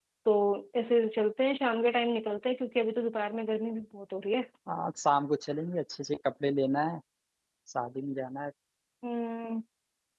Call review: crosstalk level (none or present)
none